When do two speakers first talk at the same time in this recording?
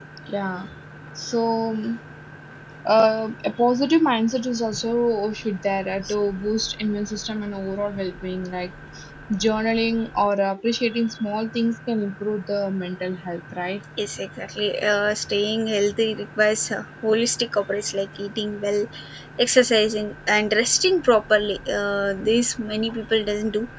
none

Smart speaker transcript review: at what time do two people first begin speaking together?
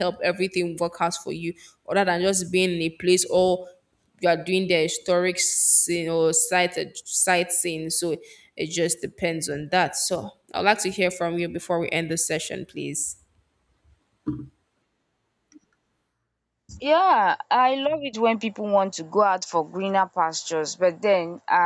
none

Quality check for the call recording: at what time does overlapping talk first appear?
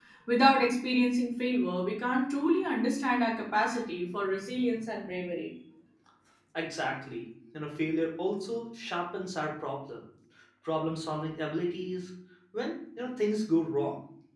none

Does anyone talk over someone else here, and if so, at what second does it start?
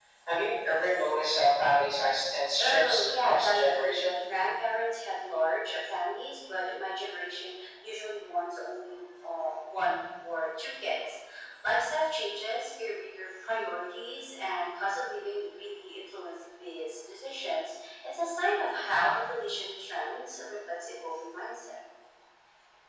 3 s

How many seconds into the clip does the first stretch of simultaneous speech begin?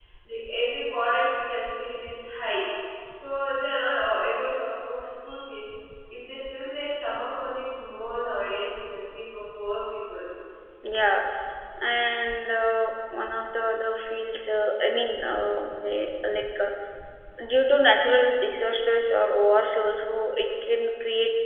none

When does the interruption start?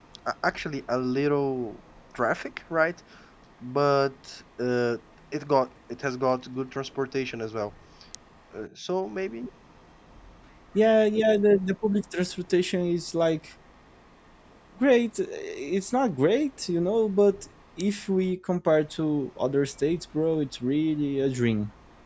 none

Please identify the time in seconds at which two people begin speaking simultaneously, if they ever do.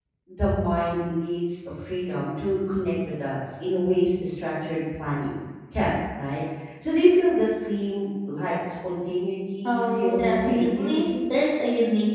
10 s

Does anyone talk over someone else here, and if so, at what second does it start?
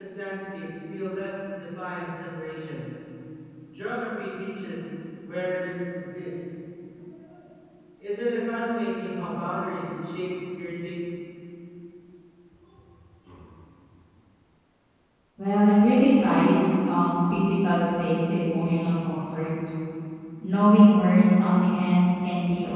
none

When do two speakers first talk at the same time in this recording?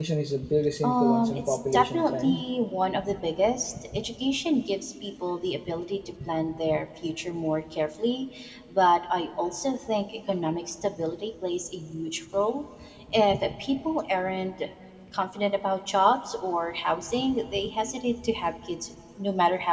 1 s

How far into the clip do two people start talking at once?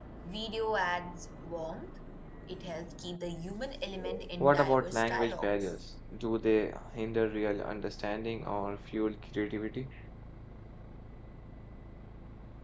4 s

